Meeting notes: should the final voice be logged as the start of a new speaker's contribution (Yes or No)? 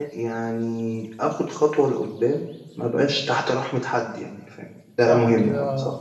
Yes